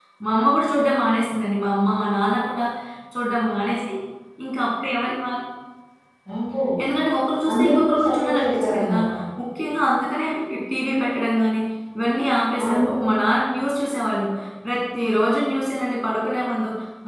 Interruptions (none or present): present